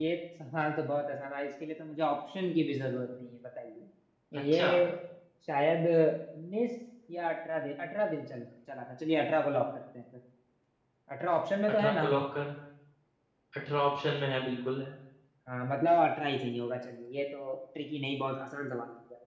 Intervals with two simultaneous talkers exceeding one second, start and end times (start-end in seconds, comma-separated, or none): none